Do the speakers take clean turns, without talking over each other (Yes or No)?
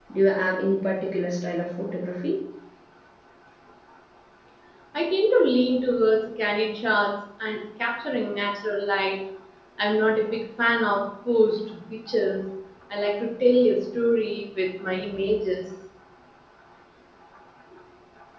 Yes